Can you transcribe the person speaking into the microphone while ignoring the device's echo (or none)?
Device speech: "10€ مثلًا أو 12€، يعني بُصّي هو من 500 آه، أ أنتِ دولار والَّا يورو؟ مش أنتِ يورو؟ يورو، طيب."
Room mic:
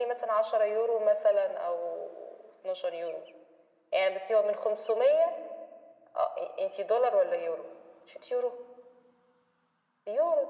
none